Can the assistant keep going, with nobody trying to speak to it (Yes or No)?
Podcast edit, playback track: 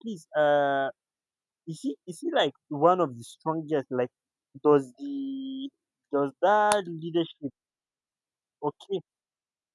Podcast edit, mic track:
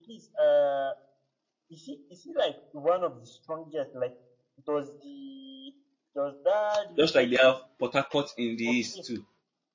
No